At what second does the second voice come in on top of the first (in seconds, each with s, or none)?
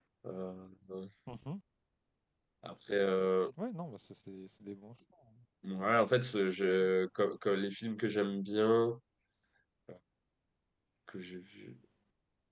none